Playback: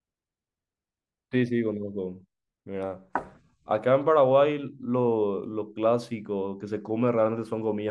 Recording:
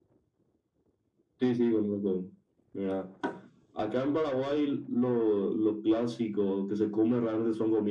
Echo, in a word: present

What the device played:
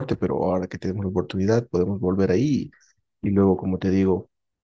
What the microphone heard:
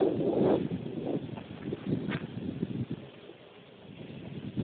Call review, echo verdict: none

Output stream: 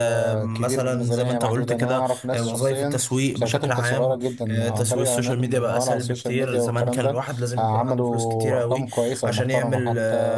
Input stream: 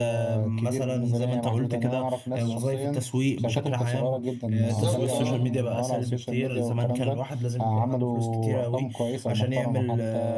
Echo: present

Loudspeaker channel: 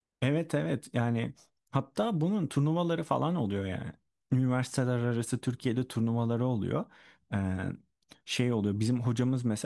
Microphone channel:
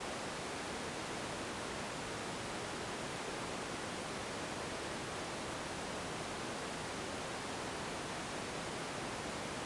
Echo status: none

